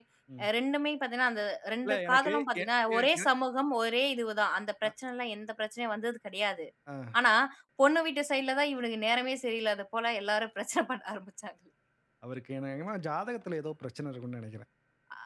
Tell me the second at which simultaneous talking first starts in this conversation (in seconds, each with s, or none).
1.8 s